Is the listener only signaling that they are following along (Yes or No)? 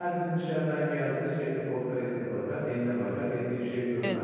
No